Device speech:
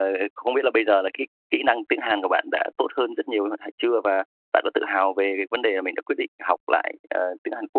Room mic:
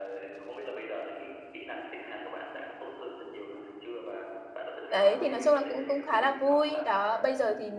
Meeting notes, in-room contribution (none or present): present